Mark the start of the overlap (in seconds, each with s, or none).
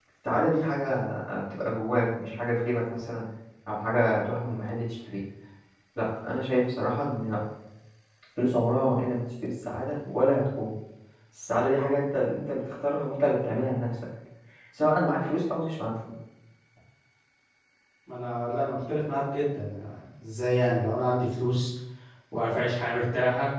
none